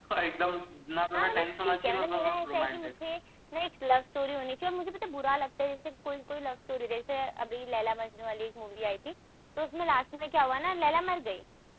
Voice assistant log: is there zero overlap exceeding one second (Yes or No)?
No